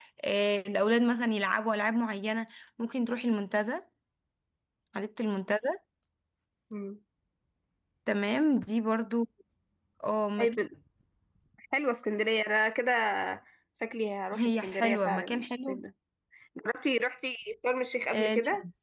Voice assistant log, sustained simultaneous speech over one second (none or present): present